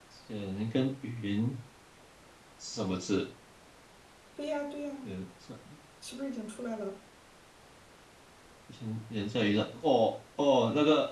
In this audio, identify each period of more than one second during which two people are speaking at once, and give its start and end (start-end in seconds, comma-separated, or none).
none